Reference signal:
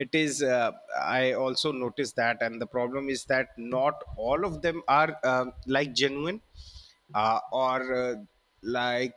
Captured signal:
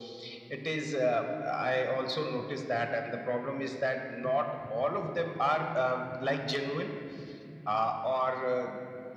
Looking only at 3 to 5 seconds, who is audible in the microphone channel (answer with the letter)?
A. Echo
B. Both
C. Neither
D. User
A